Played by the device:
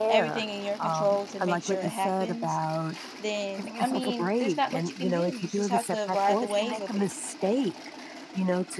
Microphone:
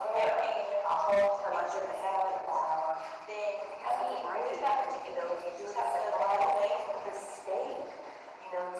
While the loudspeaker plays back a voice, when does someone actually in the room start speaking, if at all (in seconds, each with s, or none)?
none